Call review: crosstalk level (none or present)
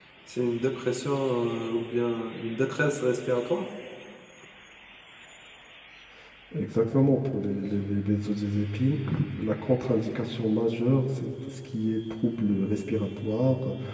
none